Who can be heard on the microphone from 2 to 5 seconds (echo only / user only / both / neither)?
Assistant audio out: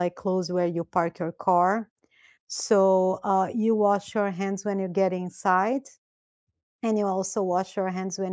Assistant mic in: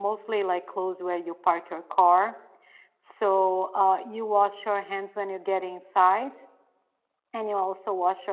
echo only